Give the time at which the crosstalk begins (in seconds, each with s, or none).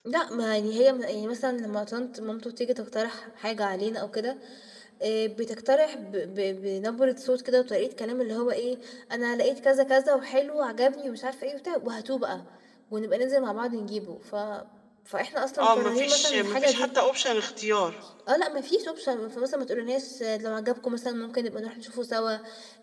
15.6 s